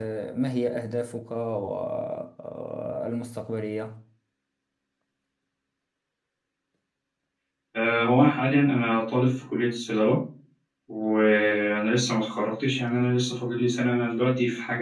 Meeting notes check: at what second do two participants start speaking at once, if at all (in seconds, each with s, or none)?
none